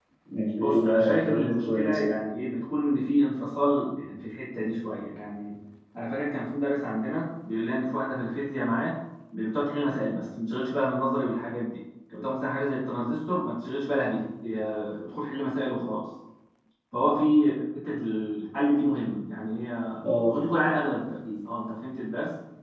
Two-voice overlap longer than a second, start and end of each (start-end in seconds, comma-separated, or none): 0.5-2.0